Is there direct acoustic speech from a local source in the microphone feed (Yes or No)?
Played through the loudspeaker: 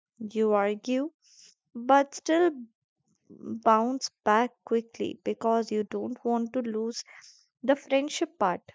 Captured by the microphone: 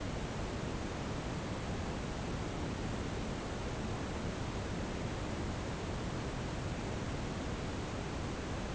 No